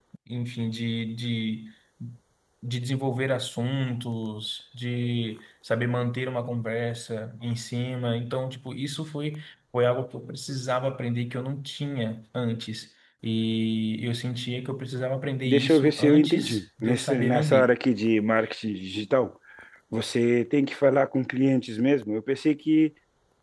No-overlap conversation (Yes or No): No